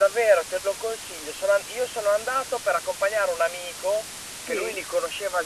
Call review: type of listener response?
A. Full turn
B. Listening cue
B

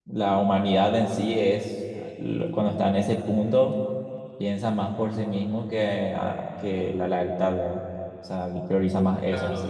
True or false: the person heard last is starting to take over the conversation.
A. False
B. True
B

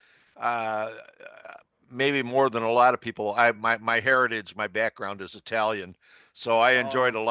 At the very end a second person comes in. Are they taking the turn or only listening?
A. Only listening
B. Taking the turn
A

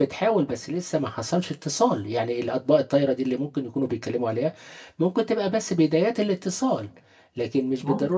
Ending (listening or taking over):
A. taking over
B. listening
B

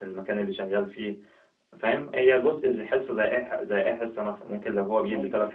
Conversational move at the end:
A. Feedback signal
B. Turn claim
A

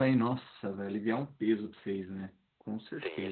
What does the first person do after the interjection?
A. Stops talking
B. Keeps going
A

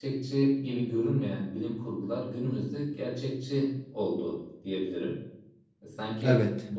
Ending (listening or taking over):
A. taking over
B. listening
B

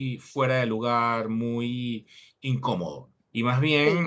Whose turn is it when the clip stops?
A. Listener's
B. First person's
B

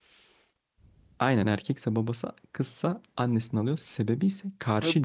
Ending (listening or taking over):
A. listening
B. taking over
B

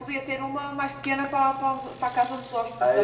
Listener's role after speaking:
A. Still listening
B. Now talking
B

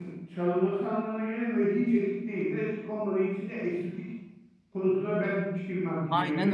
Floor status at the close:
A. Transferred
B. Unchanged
A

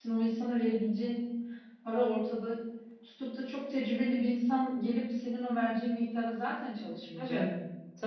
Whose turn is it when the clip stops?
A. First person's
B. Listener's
B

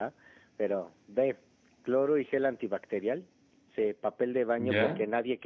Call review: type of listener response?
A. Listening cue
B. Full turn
A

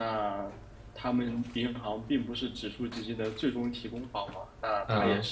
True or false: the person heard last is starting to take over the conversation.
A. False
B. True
A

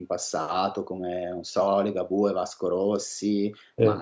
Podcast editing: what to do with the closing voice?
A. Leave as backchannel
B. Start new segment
A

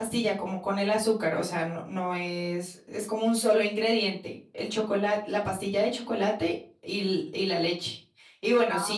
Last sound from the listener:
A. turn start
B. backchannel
B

